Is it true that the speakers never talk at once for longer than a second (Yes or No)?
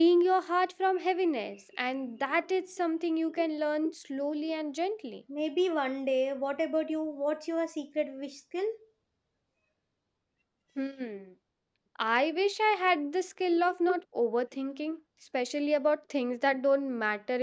Yes